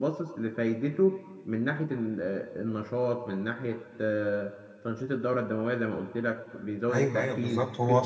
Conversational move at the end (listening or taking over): taking over